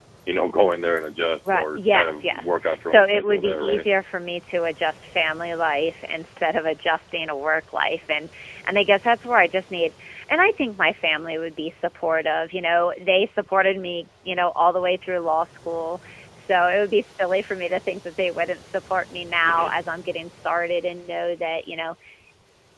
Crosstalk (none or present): present